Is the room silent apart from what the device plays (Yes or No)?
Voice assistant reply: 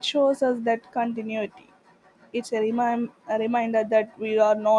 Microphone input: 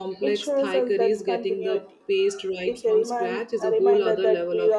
No